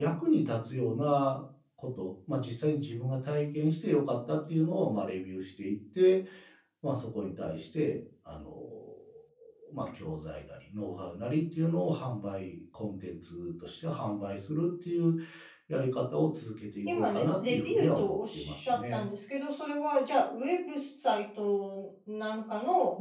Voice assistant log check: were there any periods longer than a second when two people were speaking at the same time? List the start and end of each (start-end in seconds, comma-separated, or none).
16.9-19.1